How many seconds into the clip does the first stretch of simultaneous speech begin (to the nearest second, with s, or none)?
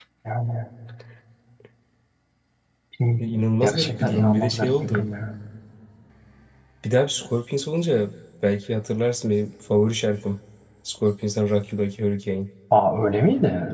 4 s